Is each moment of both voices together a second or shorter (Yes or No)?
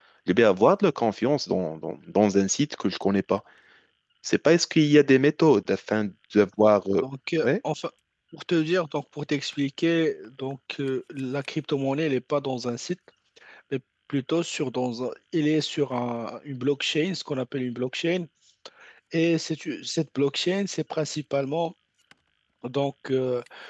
Yes